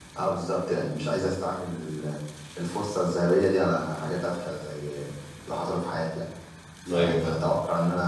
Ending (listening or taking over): listening